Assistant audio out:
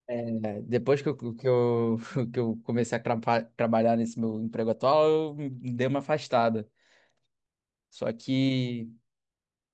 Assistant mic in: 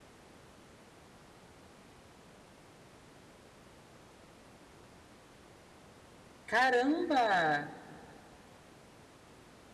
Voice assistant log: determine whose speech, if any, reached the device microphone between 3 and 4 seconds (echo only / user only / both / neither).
neither